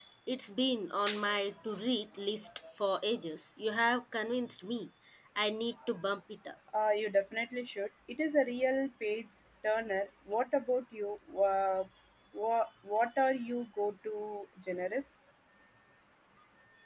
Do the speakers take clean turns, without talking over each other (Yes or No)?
Yes